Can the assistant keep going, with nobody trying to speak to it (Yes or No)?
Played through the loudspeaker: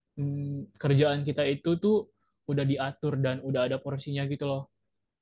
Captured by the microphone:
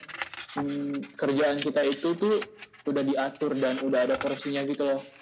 Yes